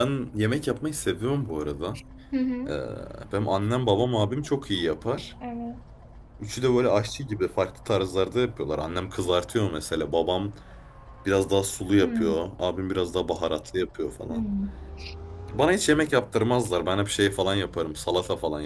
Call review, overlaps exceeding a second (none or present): none